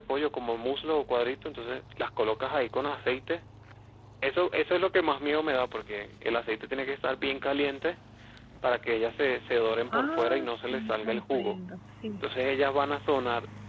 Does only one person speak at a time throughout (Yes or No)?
No